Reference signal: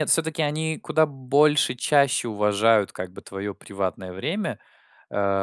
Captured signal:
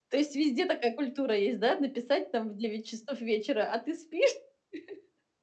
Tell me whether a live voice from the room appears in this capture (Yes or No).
Yes